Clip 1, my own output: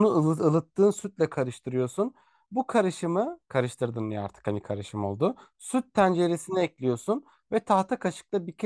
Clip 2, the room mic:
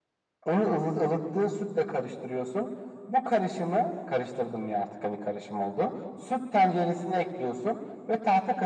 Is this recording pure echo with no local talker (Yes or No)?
Yes